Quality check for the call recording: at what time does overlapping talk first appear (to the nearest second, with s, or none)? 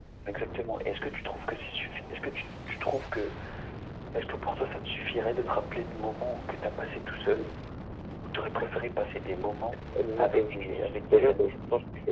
10 s